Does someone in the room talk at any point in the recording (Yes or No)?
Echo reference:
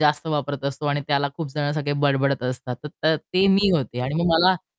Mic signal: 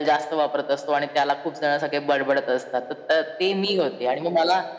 No